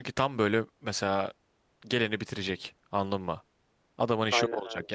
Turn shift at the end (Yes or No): Yes